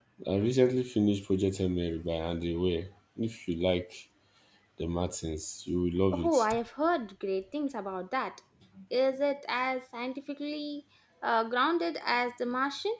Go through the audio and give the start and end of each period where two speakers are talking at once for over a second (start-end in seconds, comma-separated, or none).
none